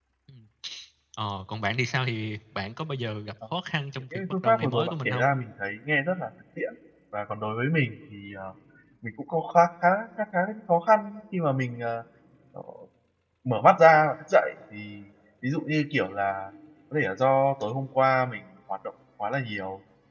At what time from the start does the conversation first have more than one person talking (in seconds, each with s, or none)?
4.1 s